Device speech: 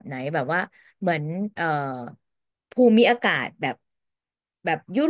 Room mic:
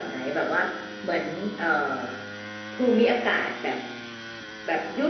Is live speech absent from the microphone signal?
Yes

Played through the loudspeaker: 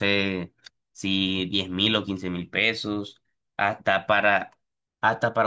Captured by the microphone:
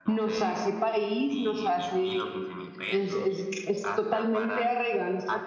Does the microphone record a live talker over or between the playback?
Yes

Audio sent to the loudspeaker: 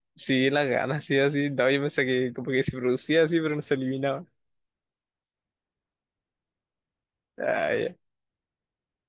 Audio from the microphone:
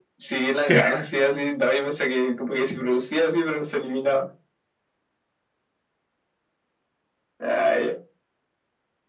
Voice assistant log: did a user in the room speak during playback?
Yes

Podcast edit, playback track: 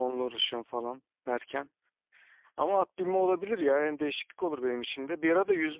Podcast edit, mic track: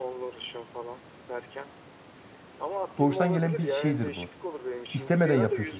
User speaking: Yes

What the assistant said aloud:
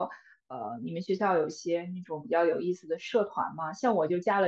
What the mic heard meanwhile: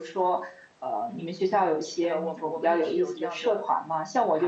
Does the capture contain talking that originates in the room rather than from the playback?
Yes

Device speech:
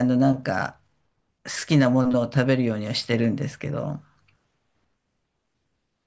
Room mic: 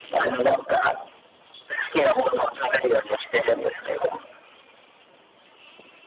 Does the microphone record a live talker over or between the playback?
No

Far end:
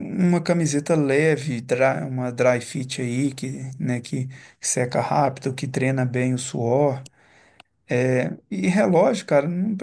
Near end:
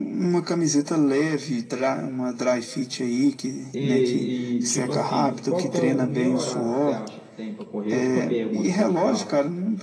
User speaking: Yes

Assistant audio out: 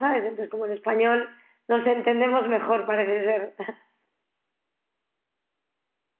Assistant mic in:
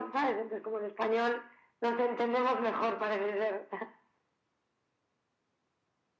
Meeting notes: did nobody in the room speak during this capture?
Yes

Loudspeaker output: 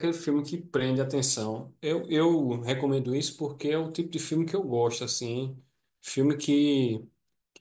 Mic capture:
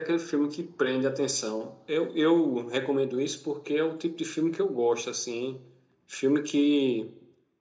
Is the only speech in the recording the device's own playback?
Yes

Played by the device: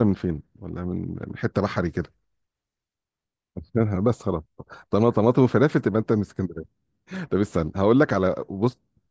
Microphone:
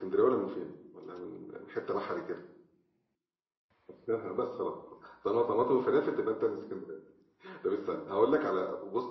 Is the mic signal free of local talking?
Yes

